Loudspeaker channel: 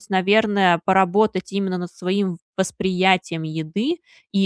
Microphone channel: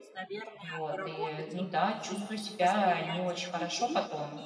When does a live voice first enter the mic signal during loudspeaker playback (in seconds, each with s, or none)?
0.6 s